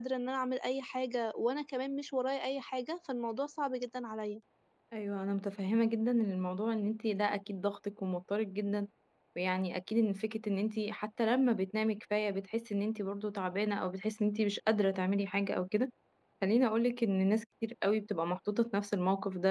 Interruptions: none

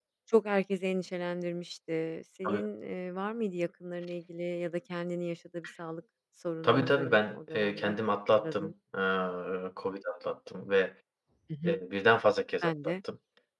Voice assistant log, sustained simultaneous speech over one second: present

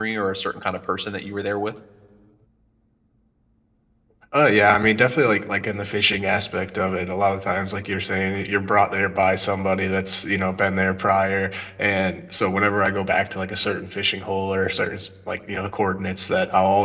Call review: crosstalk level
none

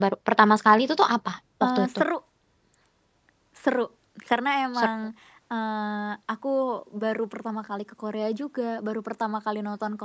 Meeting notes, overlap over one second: none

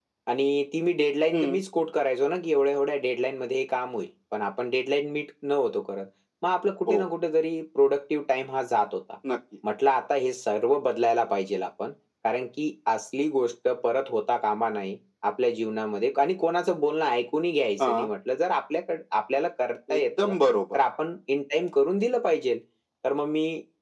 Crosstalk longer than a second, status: none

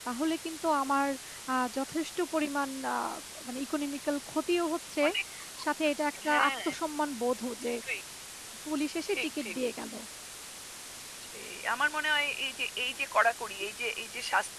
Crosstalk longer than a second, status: none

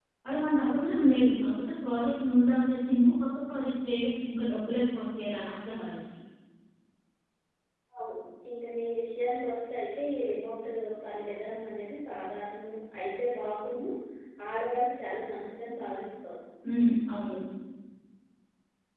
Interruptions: none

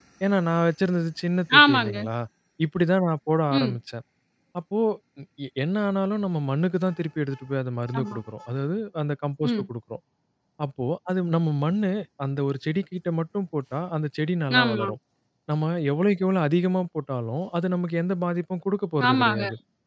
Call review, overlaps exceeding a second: none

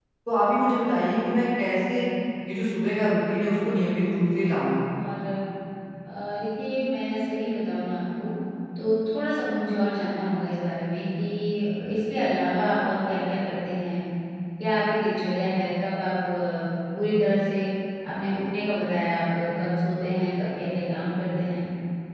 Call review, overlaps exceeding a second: present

